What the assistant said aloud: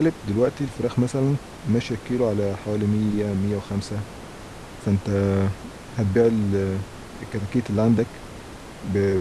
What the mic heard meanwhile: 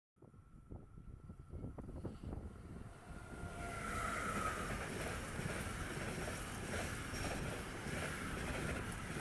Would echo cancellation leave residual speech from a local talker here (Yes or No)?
No